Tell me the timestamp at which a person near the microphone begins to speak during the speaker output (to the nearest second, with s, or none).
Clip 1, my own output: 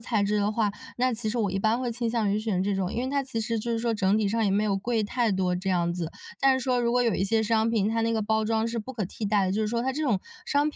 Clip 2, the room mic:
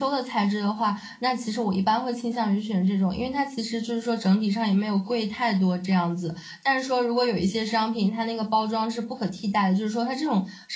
none